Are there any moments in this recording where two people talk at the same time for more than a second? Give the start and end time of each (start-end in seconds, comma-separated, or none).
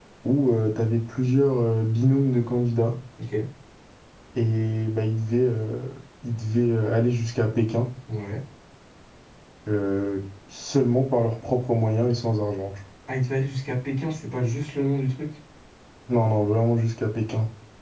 none